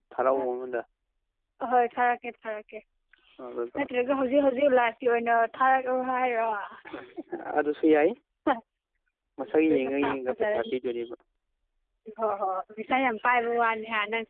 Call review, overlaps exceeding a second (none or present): present